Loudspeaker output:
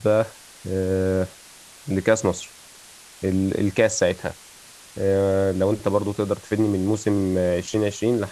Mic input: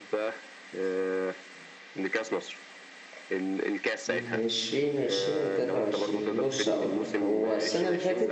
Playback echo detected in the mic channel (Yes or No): Yes